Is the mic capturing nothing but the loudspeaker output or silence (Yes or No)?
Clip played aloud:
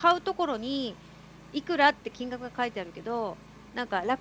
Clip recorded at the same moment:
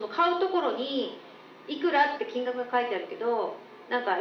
Yes